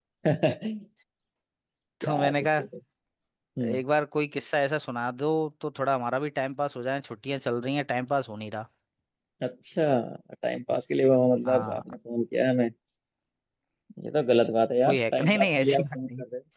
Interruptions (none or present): present